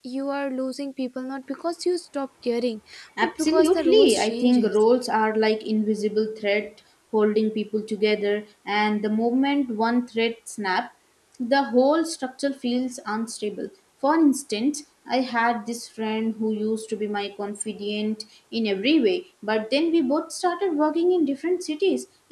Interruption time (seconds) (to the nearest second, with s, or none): 3 s